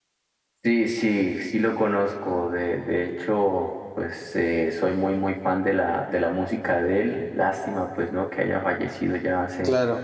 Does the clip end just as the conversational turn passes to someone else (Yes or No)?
No